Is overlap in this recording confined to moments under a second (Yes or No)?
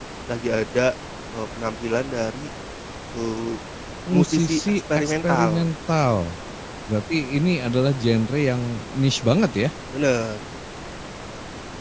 No